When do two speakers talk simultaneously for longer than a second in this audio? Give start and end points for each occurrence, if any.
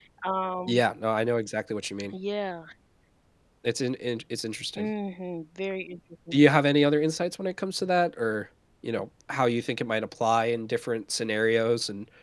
none

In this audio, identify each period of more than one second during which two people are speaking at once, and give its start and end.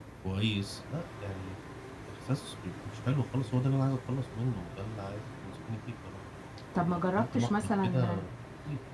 6.8-8.2

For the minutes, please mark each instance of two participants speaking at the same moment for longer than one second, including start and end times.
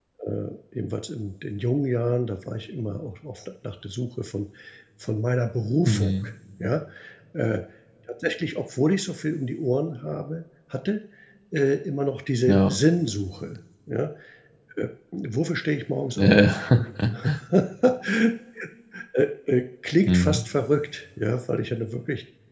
none

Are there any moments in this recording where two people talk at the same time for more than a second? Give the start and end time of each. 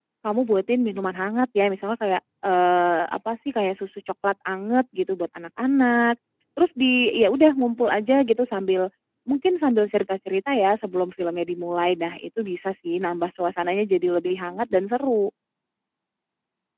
none

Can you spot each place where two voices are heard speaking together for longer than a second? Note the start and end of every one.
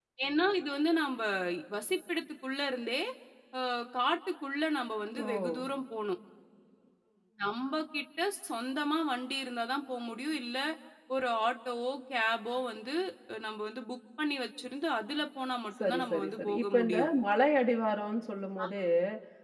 15.8-17.1

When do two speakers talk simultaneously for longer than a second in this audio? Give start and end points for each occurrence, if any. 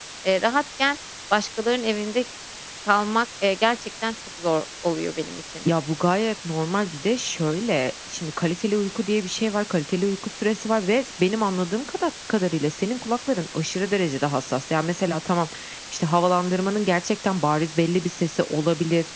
none

